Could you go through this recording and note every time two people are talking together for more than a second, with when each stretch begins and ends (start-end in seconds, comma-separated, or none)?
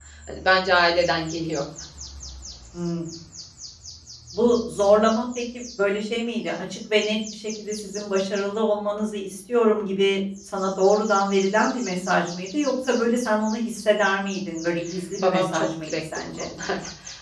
15.2-16.5